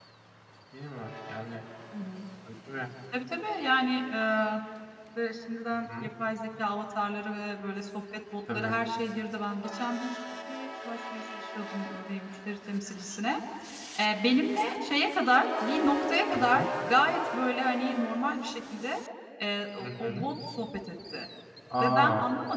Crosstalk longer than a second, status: none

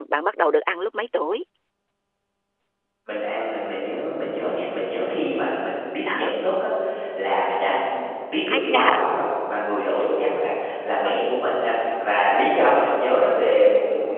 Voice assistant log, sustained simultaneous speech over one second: none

